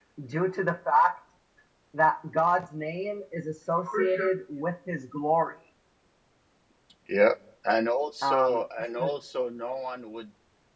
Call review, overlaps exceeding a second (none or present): none